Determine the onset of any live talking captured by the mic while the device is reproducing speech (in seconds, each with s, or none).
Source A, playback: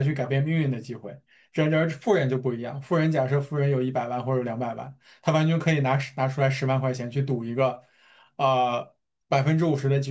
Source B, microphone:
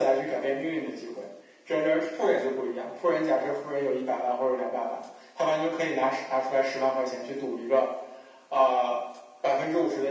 none